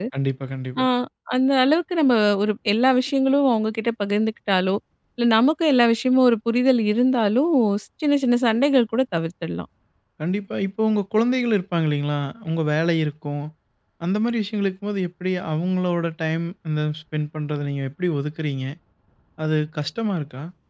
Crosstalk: none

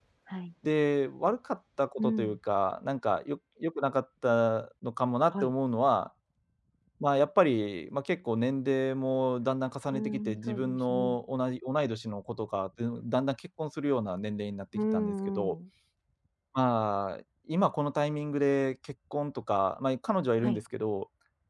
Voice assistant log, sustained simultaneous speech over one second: present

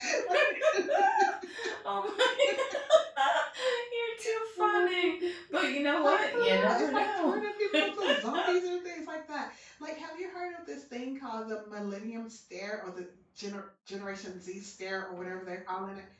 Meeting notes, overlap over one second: present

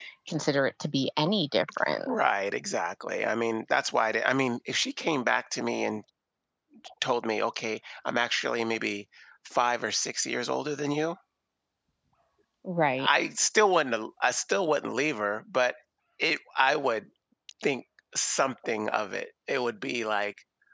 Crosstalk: none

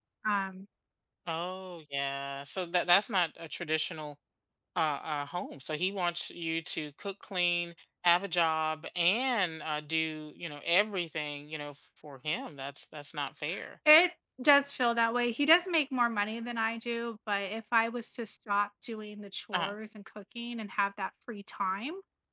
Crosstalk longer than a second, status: none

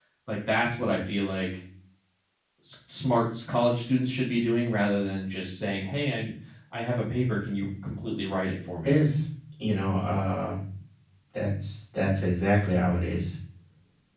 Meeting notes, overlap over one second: none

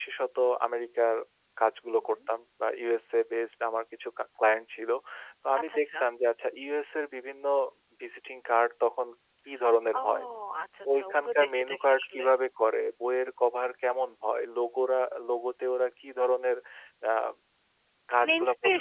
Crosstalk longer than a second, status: present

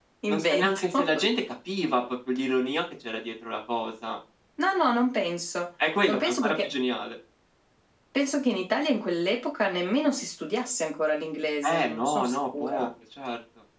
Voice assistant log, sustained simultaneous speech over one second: present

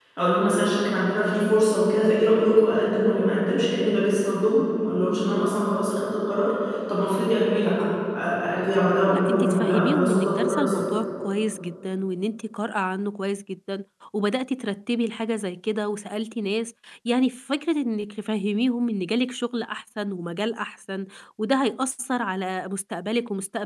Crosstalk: present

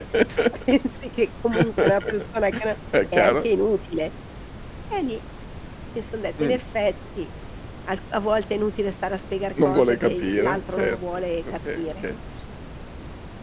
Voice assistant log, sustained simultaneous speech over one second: present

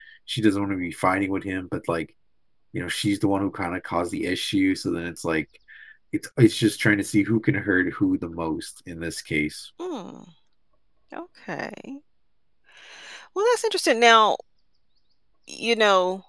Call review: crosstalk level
none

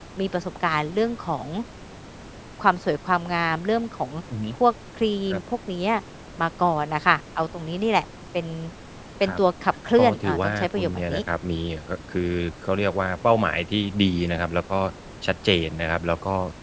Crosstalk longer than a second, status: present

